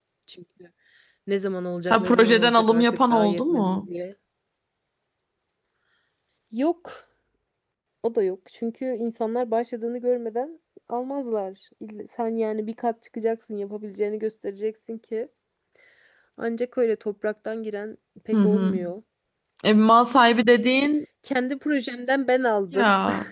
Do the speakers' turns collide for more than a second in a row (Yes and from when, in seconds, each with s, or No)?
Yes, from 1.9 s